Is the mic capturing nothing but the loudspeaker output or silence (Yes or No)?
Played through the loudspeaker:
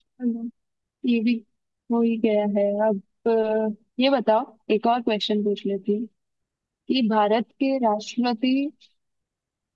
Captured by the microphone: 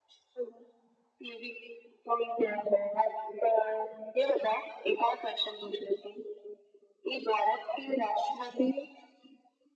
Yes